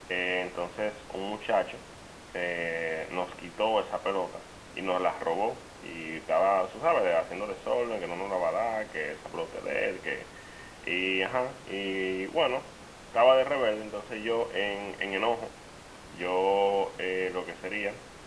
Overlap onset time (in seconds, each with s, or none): none